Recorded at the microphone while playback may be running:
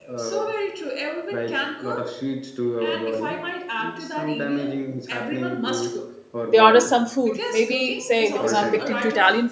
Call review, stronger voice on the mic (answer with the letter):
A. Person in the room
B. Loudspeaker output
A